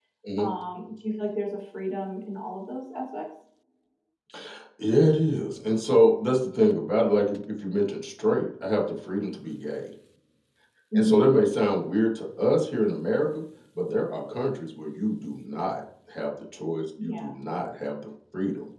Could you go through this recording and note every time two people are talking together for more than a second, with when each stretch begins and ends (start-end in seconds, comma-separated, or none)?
none